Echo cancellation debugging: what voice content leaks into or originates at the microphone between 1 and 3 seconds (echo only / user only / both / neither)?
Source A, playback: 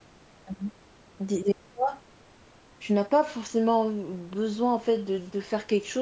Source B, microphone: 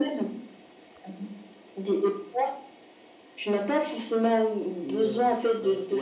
echo only